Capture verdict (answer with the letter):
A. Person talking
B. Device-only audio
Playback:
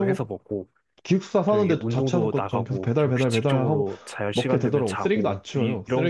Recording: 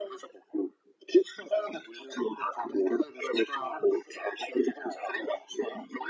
B